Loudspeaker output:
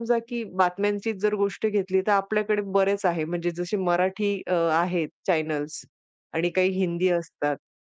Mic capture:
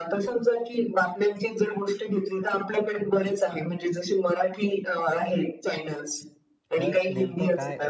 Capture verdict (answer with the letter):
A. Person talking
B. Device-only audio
A